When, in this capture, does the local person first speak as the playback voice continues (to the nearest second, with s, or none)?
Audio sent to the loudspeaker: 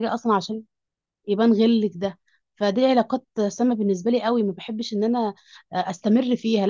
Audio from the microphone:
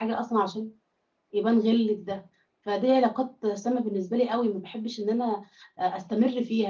none